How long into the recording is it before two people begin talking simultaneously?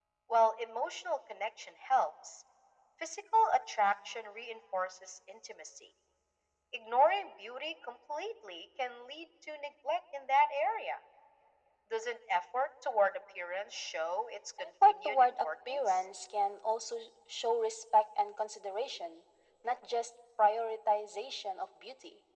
14.6 s

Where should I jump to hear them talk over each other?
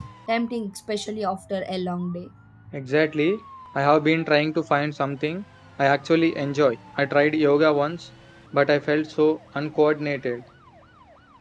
none

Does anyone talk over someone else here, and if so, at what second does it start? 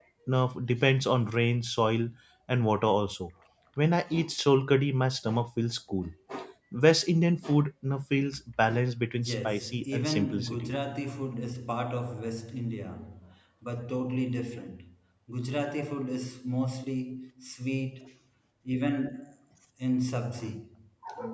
9.2 s

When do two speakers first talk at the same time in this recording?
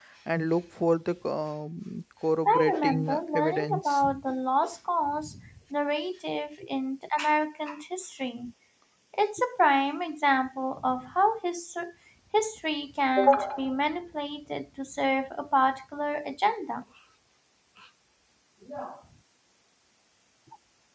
2.5 s

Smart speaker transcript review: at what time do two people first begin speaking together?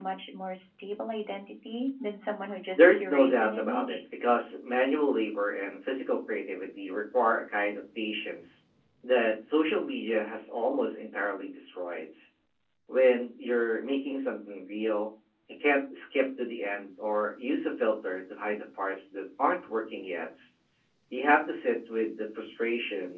2.8 s

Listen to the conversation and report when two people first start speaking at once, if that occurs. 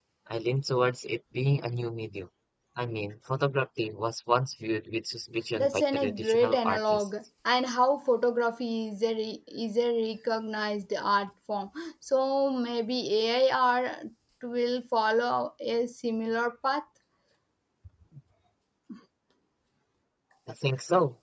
5.6 s

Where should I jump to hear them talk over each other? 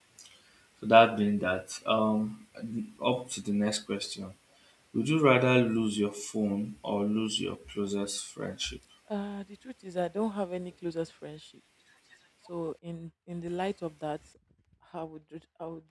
none

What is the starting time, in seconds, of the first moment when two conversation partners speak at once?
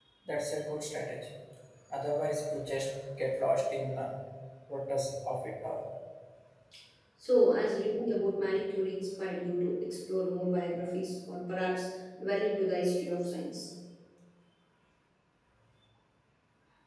none

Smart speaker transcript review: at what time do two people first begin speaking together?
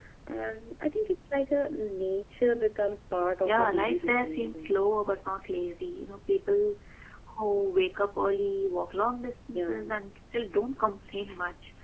3.4 s

